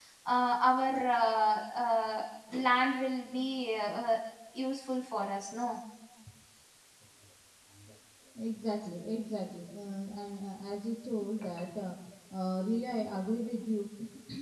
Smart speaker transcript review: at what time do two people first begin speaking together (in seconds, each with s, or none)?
none